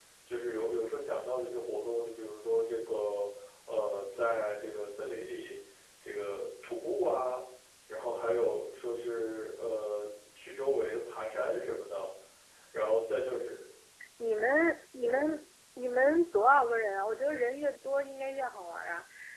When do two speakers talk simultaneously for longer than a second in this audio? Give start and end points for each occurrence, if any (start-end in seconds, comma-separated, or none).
none